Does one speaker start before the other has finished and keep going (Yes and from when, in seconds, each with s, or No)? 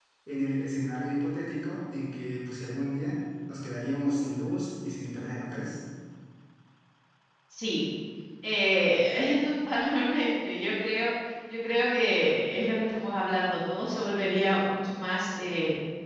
No